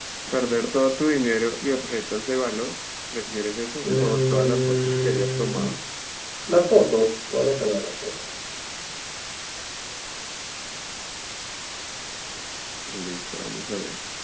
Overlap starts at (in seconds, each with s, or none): 3.8 s